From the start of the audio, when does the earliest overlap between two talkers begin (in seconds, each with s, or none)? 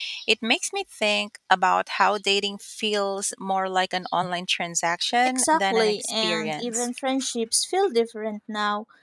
5.4 s